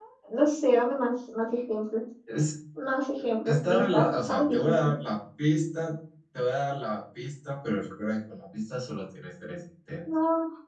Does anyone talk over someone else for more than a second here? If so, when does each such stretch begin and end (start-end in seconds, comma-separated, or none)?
3.5-4.7